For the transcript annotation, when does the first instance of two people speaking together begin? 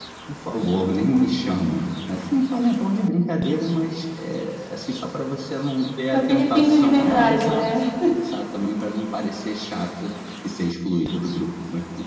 6.1 s

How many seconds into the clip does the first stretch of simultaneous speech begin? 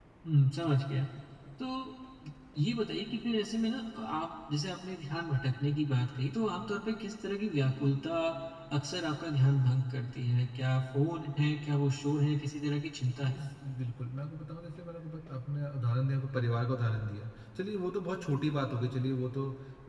none

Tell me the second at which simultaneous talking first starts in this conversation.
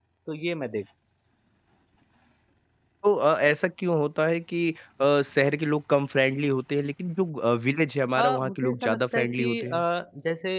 8.2 s

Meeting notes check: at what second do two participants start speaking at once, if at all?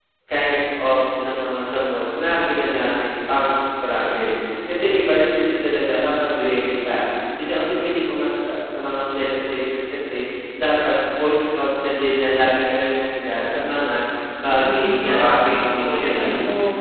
14.4 s

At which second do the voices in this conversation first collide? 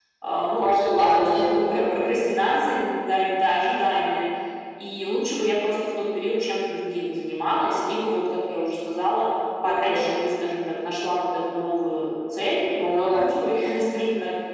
0.6 s

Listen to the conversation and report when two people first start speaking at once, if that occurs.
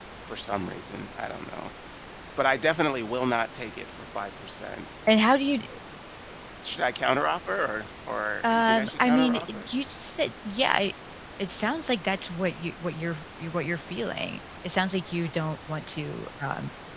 8.4 s

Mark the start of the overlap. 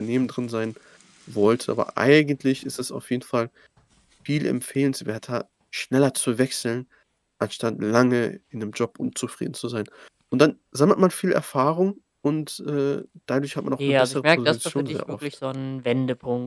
13.8 s

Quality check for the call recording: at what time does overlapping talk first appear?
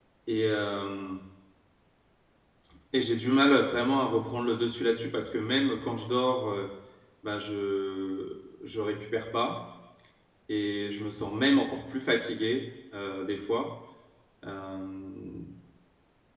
none

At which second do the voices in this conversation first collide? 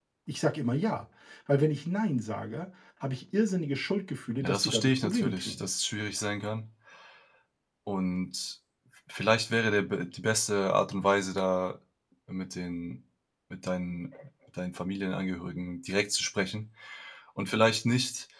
4.4 s

